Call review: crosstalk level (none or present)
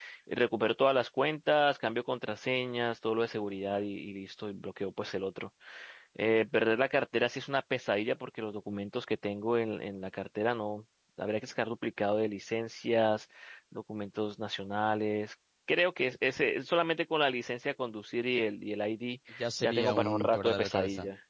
present